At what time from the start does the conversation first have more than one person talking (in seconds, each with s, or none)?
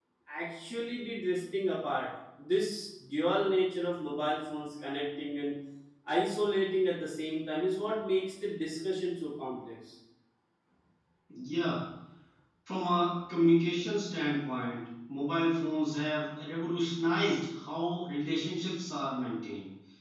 none